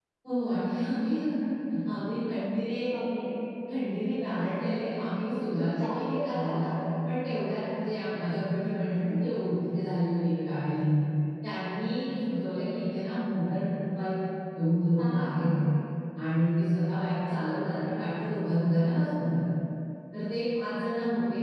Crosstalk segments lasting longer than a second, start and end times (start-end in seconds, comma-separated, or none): 5.3-6.6